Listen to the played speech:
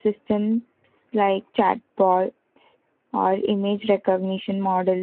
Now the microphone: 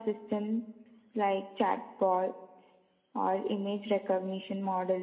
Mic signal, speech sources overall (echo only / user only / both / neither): echo only